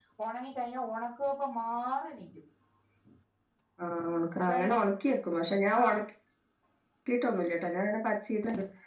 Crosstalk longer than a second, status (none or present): none